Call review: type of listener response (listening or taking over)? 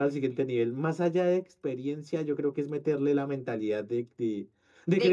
listening